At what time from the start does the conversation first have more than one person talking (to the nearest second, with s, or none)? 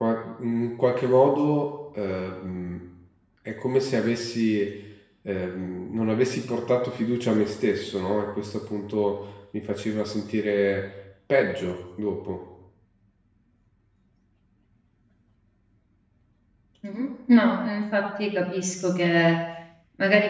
none